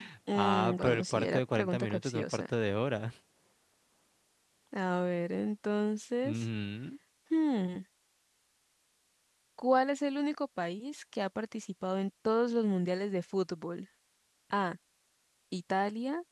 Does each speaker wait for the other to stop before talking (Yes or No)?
No